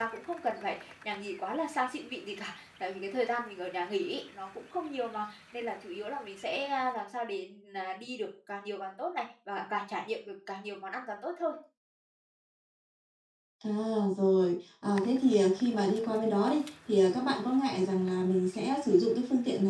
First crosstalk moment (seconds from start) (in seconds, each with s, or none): none